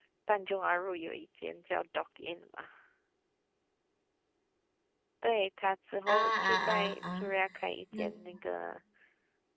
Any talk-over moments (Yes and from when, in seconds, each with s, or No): Yes, from 6.1 s